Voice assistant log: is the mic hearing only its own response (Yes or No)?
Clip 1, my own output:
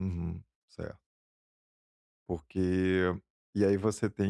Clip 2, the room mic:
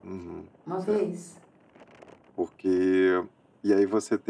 No